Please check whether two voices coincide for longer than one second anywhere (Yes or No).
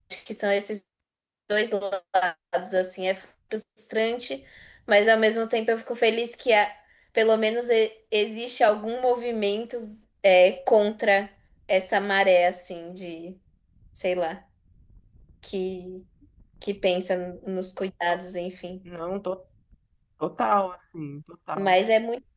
No